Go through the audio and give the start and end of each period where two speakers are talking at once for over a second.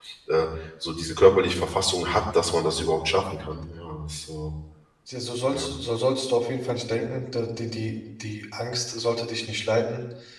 none

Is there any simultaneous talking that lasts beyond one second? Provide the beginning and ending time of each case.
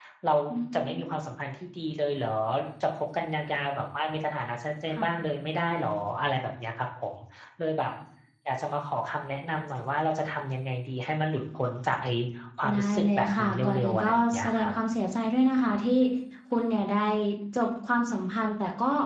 12.7-14.7

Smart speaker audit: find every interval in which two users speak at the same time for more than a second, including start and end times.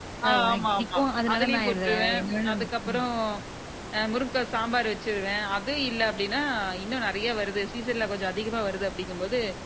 0.5-2.7

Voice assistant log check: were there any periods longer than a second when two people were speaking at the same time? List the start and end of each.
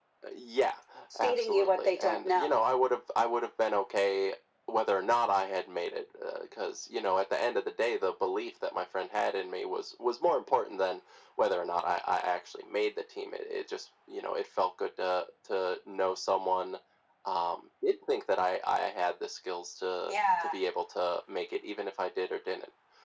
1.2-2.6

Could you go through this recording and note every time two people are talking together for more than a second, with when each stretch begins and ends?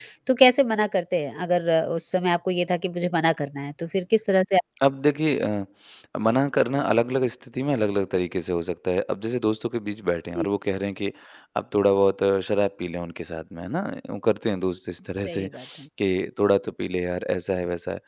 none

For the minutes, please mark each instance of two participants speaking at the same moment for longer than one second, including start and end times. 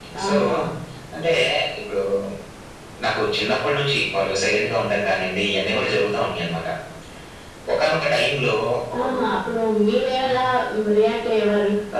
none

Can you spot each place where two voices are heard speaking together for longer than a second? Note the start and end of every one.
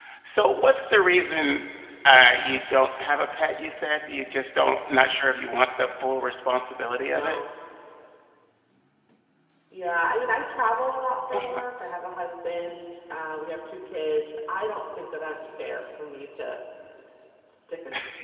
none

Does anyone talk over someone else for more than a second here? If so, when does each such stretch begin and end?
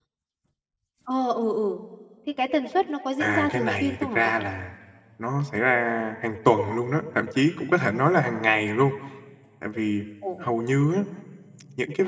3.2-4.5

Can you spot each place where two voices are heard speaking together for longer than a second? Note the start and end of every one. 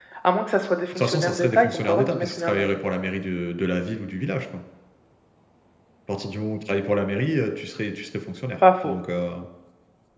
0.9-2.6

